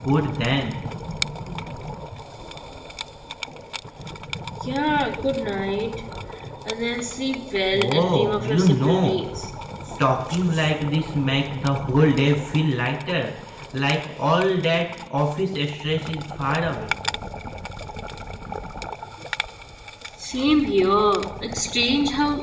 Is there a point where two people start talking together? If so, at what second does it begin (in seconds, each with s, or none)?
7.7 s